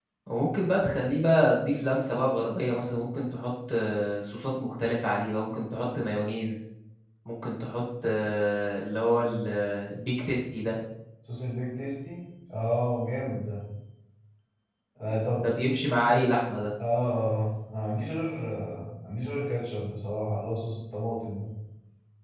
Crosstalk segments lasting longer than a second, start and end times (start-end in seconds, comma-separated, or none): none